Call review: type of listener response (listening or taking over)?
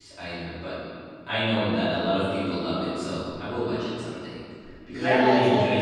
taking over